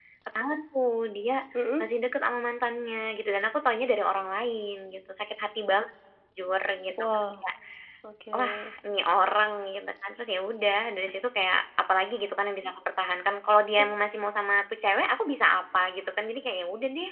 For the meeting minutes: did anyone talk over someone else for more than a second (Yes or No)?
No